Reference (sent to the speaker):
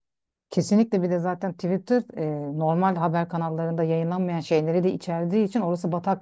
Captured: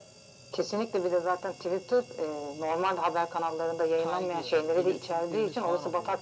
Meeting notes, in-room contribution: present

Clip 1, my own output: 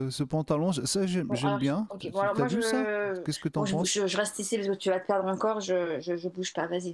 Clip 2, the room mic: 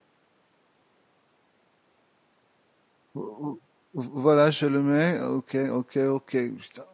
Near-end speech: present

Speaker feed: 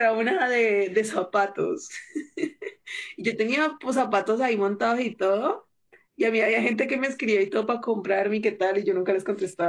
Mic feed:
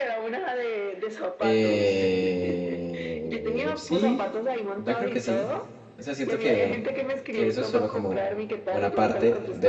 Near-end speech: present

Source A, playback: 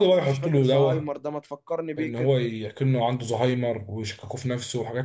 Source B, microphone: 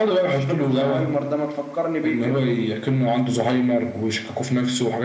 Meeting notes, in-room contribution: none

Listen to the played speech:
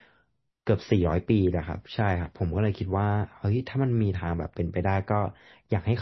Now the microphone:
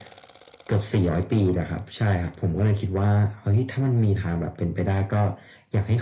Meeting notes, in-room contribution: none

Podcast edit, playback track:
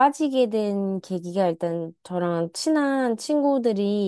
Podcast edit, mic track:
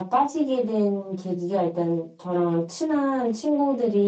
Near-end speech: none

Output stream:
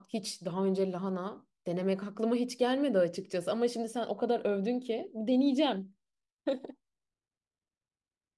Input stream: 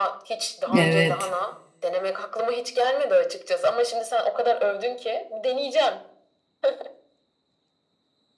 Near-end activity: present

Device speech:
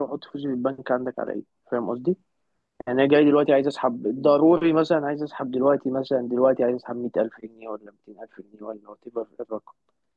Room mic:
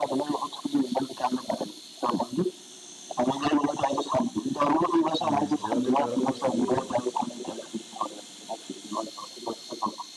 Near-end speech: present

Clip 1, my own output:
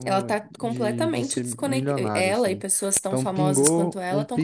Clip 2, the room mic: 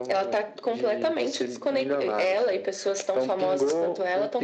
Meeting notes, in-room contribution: none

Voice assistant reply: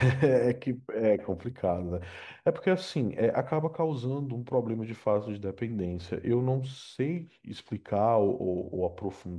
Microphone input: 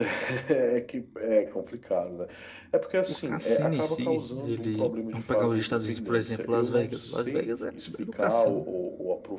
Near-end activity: present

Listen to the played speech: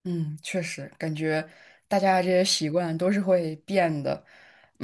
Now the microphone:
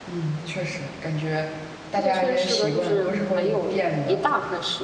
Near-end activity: present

